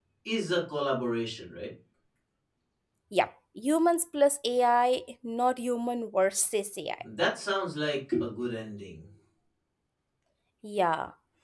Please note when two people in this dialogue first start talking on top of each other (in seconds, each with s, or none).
none